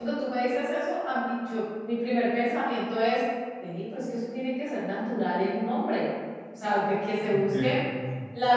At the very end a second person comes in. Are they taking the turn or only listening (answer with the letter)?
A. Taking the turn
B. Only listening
B